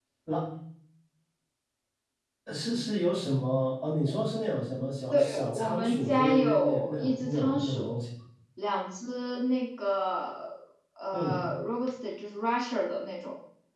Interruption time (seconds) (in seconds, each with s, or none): 5.1 s